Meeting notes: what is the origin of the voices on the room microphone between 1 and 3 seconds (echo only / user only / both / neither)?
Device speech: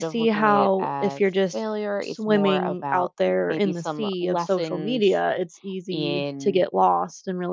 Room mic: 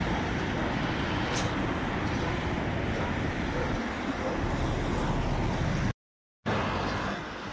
neither